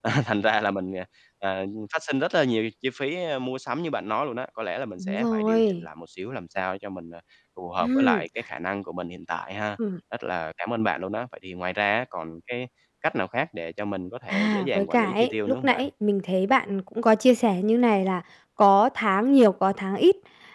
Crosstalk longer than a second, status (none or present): present